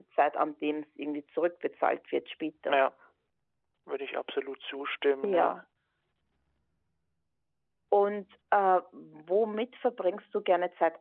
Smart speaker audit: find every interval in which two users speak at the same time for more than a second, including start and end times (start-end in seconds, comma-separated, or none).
none